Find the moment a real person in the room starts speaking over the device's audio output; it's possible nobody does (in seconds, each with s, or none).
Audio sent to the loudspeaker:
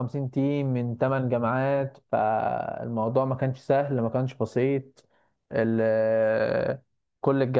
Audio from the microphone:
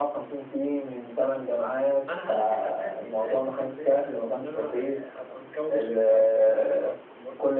2.1 s